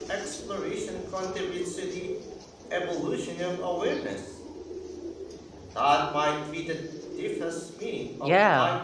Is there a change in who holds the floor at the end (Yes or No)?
Yes